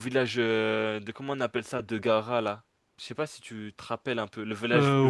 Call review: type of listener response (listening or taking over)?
taking over